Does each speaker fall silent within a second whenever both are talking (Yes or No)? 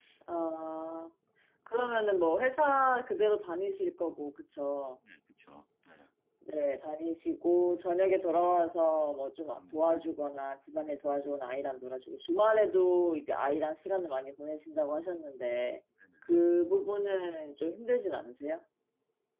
Yes